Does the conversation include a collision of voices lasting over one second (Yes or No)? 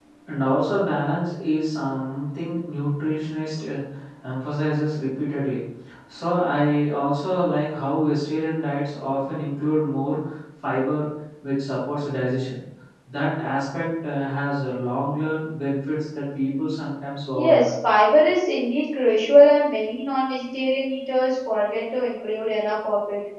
No